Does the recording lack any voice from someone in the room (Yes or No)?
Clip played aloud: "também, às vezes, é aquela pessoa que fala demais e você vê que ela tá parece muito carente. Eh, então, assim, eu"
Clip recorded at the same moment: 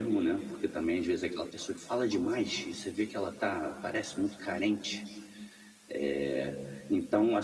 Yes